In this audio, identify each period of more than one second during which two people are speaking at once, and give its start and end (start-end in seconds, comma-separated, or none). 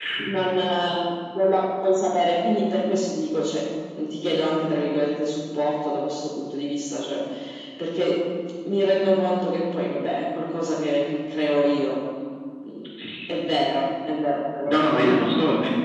none